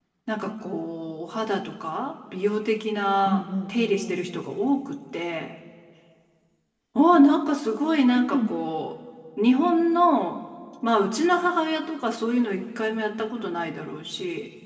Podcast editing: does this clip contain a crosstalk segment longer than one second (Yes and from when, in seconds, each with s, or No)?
Yes, from 3.2 s